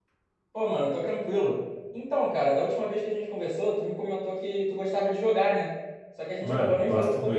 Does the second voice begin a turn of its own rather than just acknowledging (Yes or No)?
Yes